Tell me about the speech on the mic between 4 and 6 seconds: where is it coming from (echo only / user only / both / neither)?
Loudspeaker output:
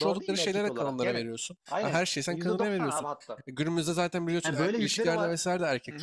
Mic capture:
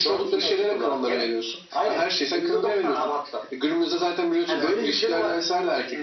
echo only